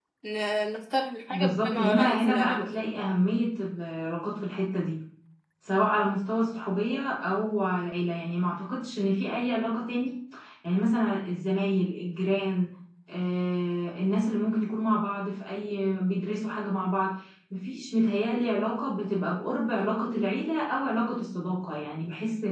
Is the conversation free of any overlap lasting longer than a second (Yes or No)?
No